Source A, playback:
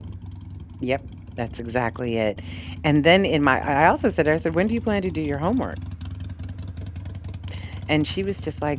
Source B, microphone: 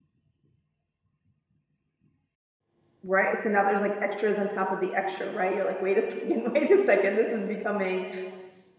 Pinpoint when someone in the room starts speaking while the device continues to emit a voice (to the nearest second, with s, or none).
3 s